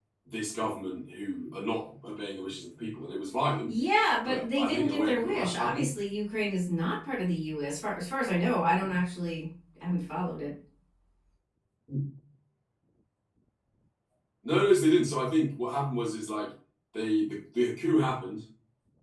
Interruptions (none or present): present